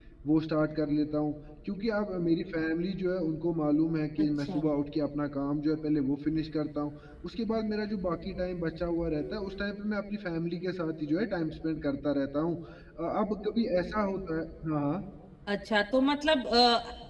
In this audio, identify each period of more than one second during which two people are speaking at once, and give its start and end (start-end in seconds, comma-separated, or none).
none